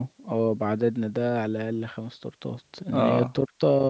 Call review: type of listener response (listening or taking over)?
listening